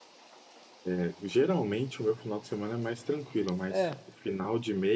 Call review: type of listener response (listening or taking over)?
listening